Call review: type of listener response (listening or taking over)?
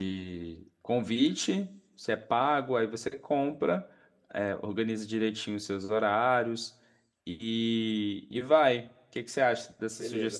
taking over